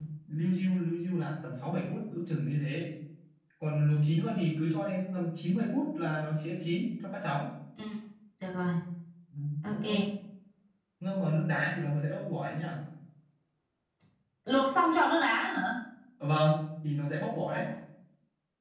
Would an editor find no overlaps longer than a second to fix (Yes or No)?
Yes